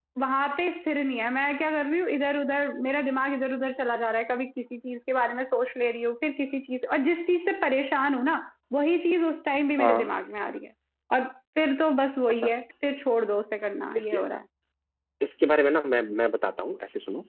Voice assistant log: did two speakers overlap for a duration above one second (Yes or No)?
No